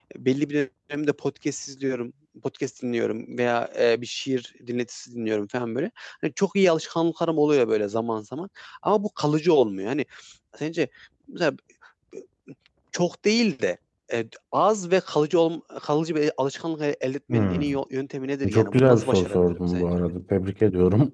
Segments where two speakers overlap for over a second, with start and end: 18.5-19.9

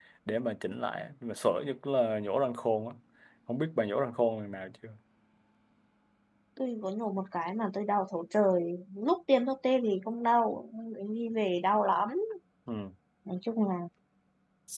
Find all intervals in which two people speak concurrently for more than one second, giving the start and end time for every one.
none

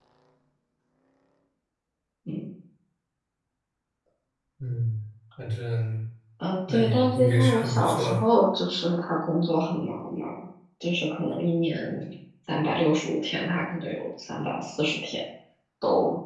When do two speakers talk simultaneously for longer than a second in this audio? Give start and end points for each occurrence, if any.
6.7-8.2

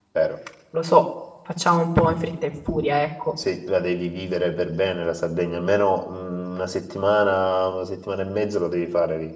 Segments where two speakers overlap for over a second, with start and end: none

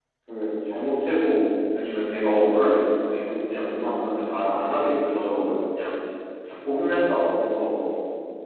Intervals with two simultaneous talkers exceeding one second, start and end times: 3.7-5.6

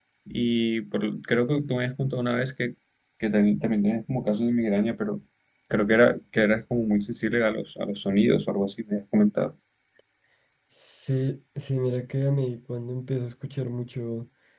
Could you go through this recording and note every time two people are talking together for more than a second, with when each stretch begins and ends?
none

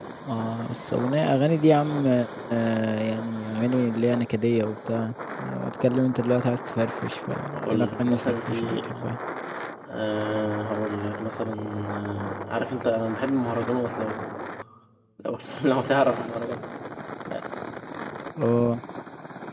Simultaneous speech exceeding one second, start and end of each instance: 7.5-8.8

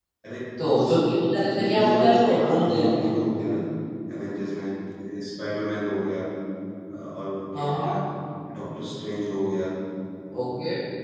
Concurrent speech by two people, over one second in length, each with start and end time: 1.4-3.1

